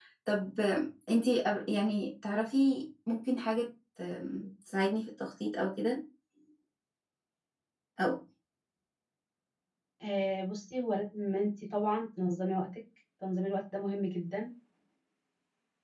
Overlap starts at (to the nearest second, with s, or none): none